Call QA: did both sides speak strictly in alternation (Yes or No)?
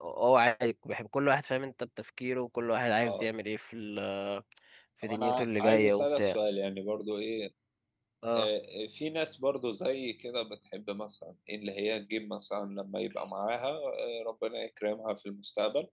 No